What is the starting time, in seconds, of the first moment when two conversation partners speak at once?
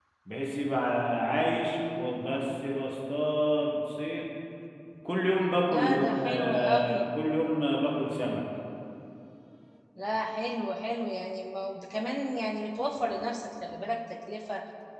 5.7 s

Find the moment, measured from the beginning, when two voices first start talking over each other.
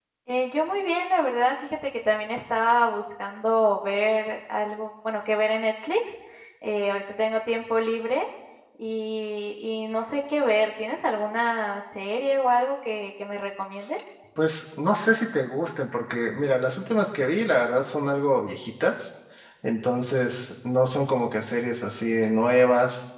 none

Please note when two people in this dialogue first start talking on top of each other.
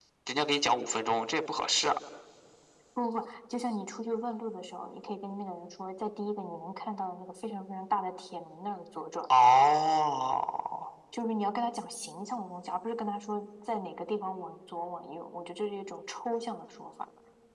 none

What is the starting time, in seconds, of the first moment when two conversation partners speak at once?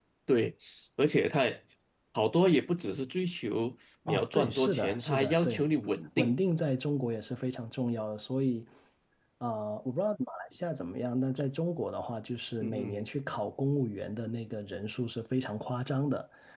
4.1 s

